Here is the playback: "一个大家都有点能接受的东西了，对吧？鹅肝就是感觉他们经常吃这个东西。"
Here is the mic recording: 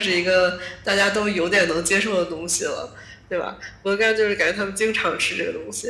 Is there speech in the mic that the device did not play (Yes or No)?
No